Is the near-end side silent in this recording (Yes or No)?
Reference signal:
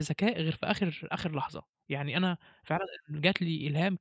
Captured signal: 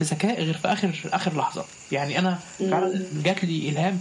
No